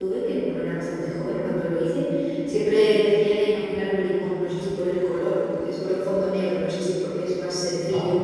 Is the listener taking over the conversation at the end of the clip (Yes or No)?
No